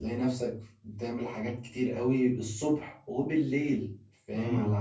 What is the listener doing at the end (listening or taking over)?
listening